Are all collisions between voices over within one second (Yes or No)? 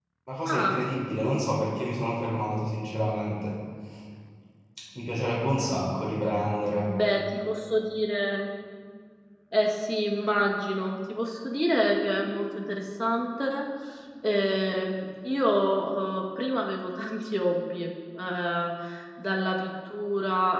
Yes